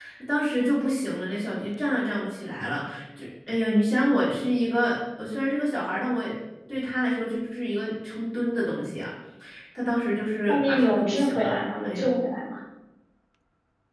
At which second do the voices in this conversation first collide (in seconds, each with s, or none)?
10.5 s